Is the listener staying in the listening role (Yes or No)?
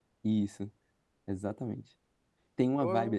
Yes